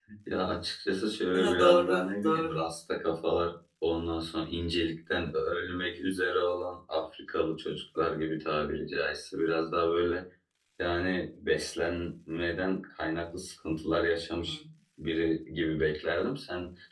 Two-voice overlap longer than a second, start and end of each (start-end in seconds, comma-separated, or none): 1.3-2.7